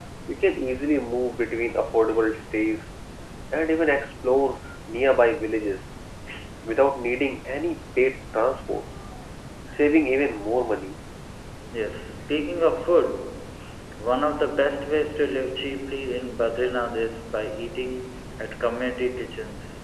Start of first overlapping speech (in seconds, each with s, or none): none